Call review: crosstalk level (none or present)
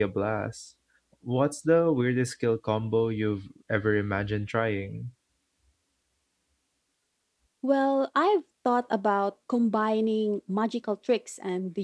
none